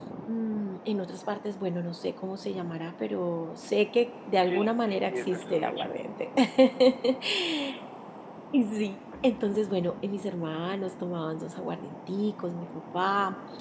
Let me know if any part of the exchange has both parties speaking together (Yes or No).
Yes